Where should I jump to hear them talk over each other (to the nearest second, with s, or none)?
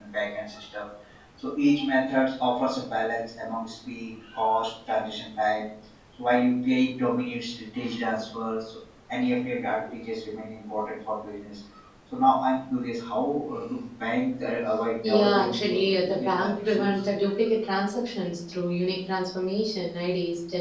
15 s